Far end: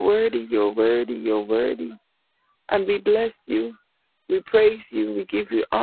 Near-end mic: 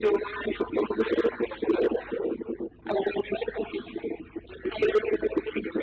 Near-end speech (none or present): none